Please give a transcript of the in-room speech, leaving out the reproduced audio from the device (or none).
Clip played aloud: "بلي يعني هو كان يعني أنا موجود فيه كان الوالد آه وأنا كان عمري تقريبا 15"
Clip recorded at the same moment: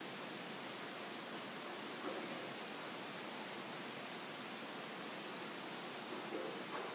none